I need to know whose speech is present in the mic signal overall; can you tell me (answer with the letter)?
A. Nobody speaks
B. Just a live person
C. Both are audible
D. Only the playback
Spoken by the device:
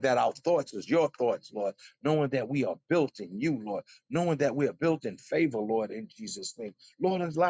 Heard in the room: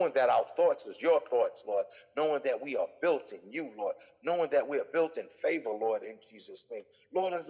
D